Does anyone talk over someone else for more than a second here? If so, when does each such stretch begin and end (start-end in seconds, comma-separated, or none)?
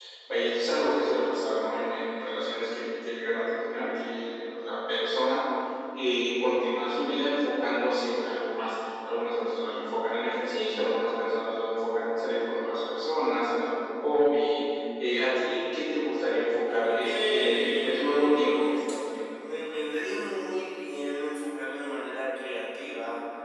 16.7-18.5